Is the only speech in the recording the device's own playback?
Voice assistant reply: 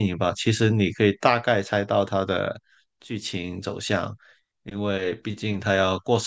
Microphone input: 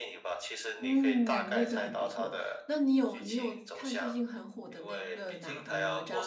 No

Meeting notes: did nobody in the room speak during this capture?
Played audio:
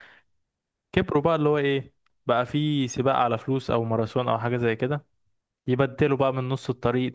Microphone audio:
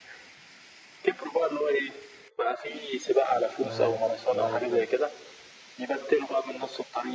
No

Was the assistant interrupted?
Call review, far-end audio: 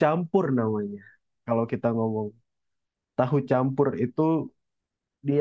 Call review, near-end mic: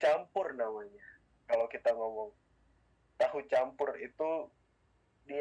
No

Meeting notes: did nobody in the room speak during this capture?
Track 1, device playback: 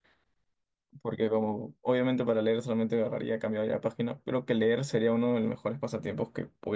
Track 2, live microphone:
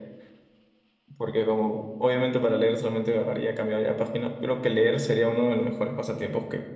Yes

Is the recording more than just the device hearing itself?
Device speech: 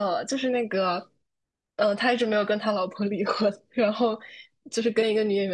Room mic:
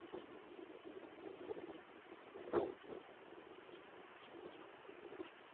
No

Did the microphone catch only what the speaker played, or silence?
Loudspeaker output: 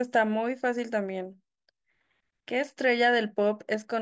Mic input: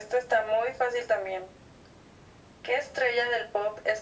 Yes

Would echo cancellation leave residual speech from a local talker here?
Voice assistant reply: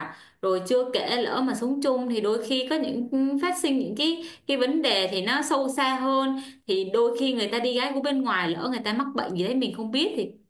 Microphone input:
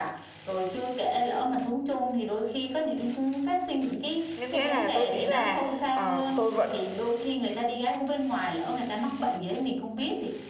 Yes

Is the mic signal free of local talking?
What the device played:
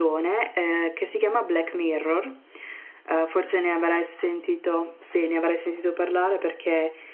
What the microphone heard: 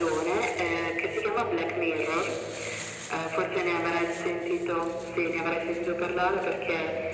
Yes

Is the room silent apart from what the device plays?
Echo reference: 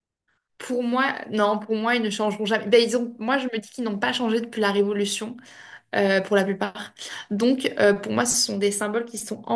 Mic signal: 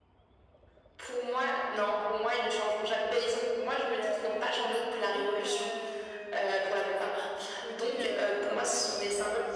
No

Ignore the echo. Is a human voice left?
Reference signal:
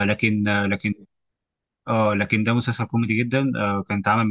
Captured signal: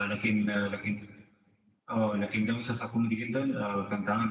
No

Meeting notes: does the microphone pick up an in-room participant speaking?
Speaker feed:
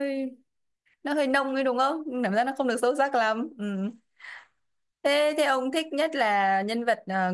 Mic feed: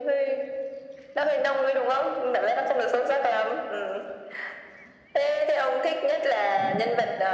No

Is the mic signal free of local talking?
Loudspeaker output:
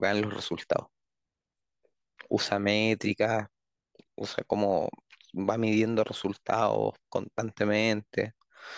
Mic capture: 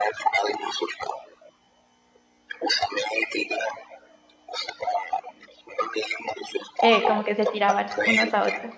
No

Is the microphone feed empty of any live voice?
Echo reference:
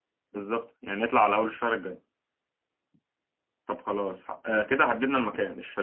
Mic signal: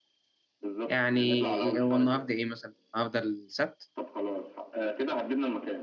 No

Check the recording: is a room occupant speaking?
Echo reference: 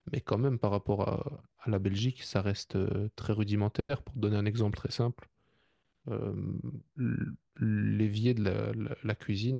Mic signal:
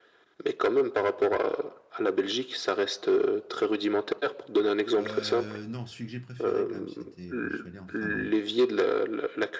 Yes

